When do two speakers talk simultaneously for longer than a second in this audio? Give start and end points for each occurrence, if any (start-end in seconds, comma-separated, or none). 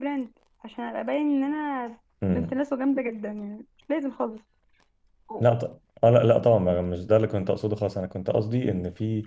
none